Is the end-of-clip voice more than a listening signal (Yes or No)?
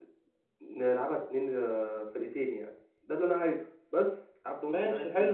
Yes